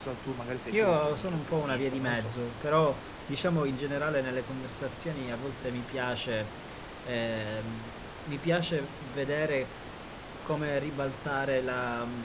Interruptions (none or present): present